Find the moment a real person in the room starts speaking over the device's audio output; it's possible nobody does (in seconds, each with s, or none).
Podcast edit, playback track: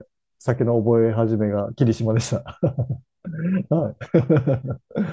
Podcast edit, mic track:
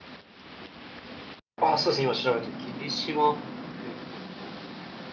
1.6 s